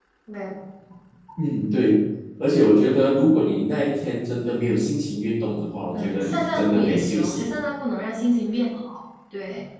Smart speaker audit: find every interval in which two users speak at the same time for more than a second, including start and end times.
5.9-7.5

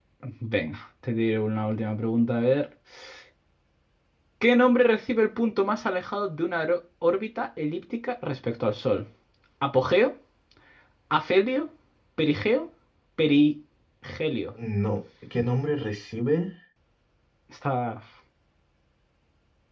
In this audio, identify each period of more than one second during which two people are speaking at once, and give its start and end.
none

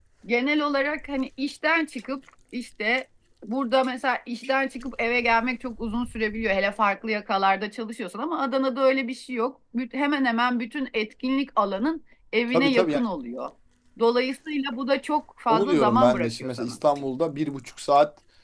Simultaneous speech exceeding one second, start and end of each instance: 15.5-16.8

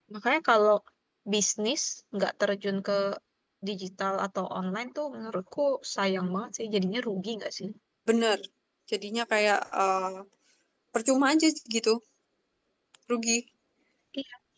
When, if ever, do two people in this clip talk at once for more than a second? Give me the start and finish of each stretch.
none

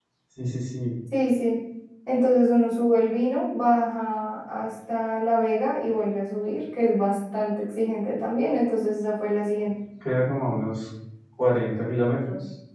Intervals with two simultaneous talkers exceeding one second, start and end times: none

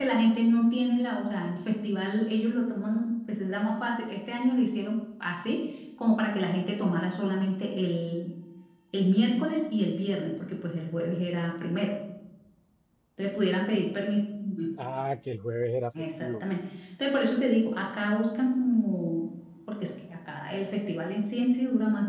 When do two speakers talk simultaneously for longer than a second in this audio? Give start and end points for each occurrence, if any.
none

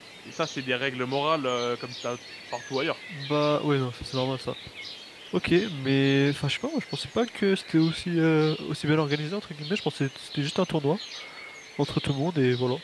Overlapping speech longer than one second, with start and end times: none

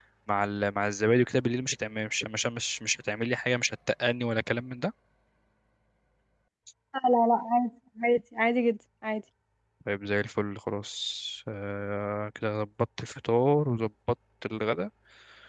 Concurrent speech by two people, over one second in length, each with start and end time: none

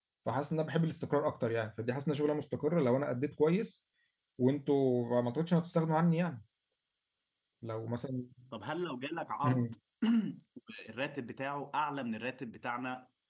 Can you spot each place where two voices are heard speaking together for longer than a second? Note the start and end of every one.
none

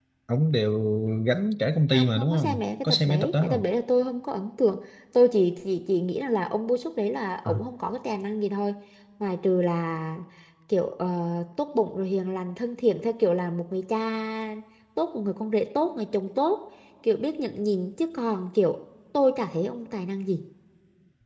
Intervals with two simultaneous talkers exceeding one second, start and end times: 1.9-3.6

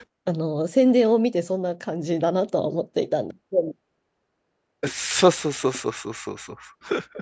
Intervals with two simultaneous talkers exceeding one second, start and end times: none

